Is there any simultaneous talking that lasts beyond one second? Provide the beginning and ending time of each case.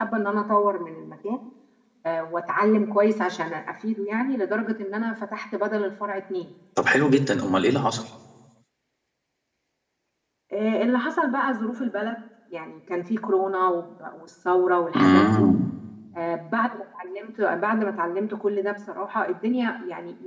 none

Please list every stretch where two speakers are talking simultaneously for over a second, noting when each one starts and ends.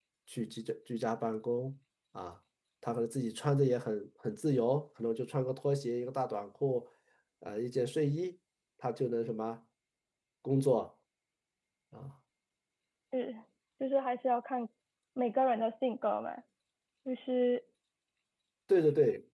none

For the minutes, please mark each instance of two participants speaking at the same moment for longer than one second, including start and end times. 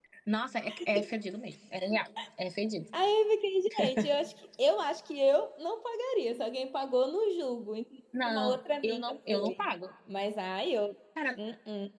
8.2-9.5

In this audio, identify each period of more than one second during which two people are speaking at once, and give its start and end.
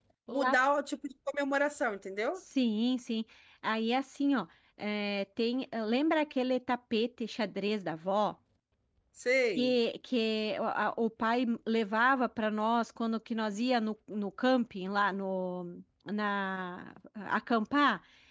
none

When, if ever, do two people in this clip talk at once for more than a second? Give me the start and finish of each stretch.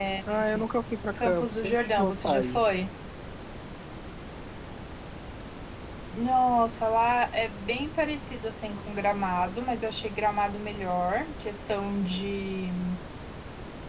1.2-2.6

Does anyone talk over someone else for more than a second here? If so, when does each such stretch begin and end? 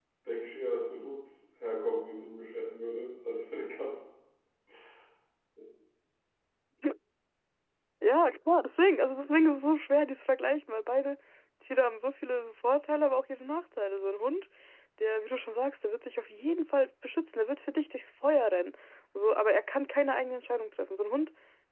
none

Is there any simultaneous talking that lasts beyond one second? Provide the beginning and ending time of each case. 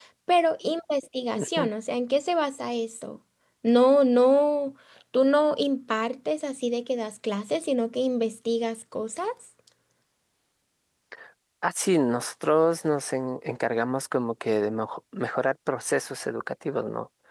none

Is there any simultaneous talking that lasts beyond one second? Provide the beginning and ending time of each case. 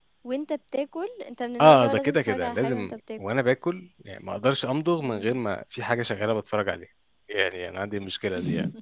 1.6-3.2

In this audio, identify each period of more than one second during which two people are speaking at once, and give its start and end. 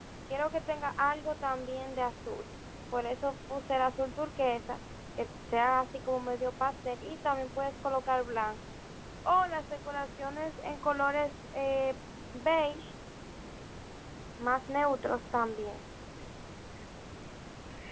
none

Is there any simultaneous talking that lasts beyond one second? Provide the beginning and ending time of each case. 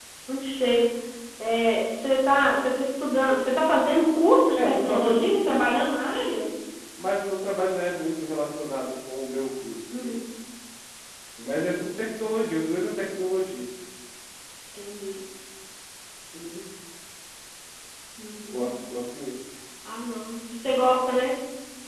4.6-5.8

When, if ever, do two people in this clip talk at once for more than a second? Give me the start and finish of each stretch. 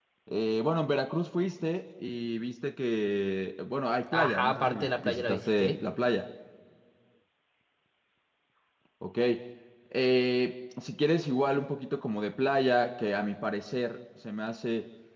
4.1-5.8

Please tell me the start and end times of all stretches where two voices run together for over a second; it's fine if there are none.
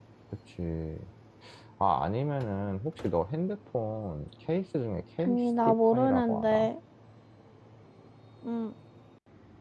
5.2-6.7

